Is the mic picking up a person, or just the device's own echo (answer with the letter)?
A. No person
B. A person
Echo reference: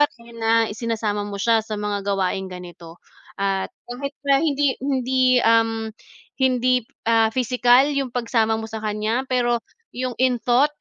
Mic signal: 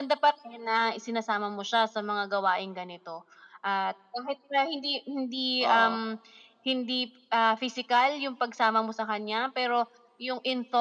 B